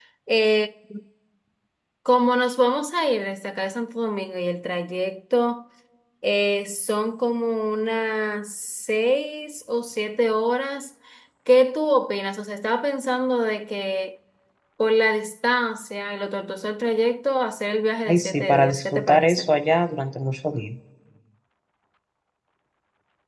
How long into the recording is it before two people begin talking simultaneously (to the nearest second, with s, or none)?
18 s